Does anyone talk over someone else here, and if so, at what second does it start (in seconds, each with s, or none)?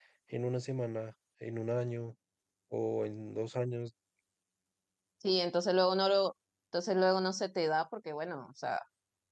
none